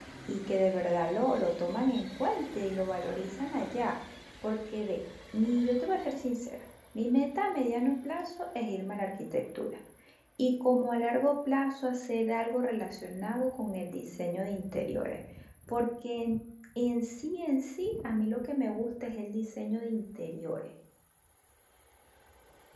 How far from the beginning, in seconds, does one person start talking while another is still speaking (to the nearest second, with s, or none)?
none